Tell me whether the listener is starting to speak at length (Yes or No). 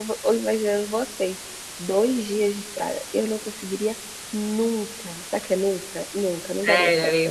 Yes